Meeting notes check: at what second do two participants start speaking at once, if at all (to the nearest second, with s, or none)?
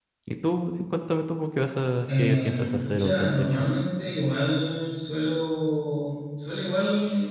2 s